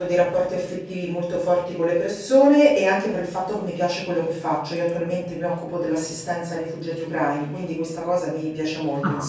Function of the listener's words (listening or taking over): taking over